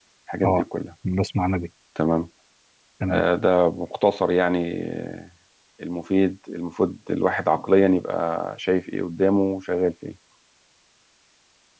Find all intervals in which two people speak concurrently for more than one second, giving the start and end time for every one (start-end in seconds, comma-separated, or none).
none